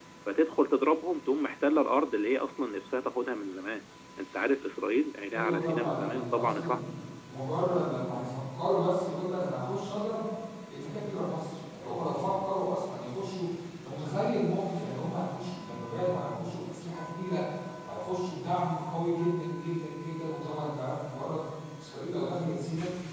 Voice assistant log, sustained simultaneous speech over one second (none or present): present